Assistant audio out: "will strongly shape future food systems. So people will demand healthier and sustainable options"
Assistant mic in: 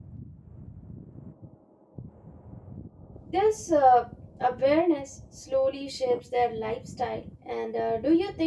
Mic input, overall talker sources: user only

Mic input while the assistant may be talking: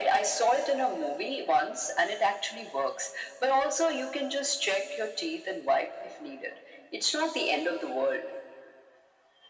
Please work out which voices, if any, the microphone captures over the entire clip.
echo only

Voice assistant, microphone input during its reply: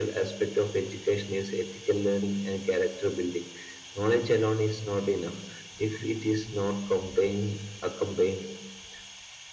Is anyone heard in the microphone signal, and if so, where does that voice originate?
echo only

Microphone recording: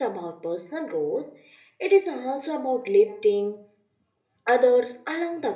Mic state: user only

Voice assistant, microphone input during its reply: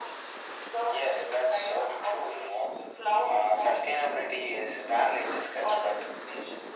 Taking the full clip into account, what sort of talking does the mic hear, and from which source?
echo only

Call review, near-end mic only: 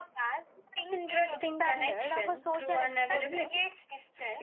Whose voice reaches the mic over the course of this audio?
both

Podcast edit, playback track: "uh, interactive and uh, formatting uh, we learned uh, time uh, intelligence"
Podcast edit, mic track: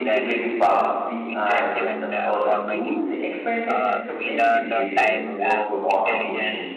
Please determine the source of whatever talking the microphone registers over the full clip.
both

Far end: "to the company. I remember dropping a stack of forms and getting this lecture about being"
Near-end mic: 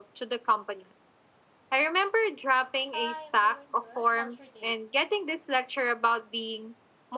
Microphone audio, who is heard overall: both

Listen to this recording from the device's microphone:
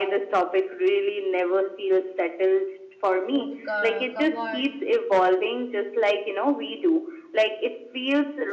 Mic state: both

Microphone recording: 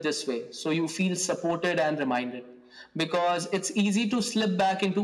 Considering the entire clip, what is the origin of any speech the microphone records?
echo only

